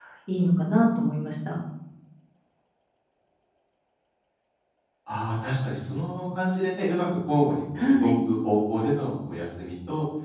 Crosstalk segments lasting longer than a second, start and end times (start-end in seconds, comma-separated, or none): none